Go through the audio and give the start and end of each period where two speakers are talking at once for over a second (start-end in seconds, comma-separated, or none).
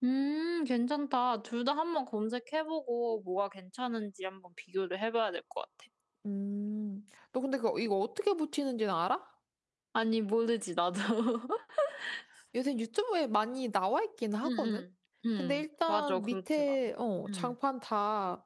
15.4-16.8